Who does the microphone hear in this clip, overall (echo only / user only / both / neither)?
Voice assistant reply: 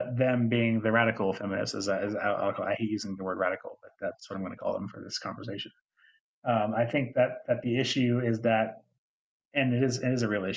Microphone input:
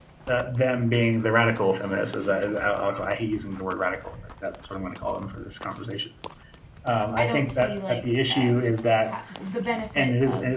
both